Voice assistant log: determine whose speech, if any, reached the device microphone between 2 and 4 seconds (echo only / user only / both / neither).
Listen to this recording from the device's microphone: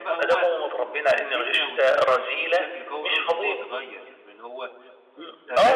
both